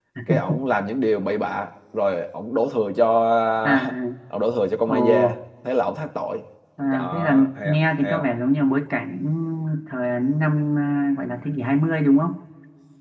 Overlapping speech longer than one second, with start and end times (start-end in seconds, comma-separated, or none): 6.9-8.3